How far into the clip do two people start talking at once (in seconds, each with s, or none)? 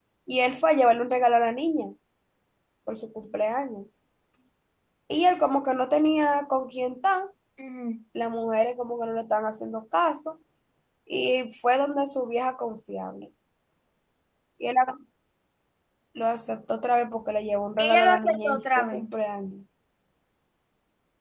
17.8 s